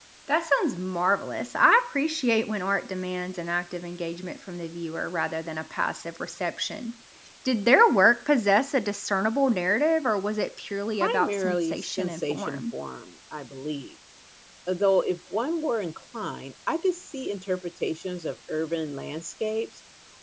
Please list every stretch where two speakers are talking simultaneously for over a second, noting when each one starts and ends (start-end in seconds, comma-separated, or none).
11.0-12.6